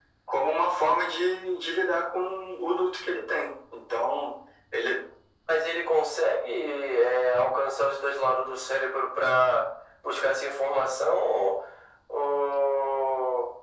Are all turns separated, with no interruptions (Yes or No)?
Yes